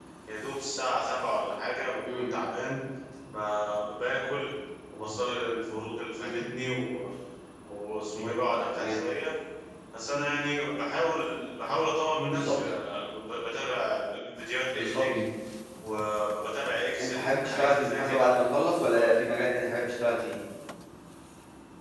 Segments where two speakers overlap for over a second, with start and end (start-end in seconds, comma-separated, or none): 17.0-18.3